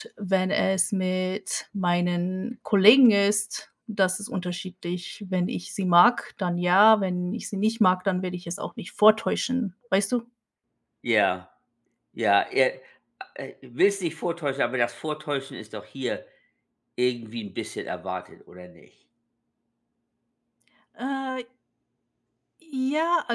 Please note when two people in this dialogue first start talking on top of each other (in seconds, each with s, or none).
none